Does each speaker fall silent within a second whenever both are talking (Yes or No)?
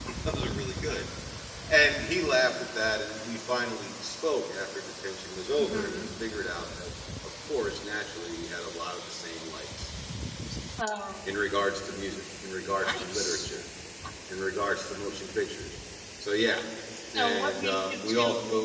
No